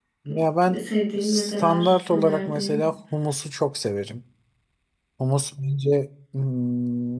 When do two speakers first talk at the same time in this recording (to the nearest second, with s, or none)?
1 s